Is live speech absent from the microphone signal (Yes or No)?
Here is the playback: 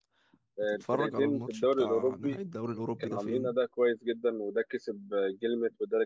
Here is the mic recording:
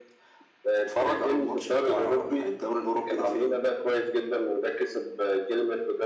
Yes